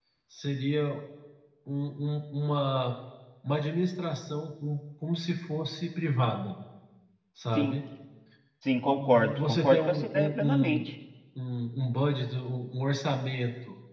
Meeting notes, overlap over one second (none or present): present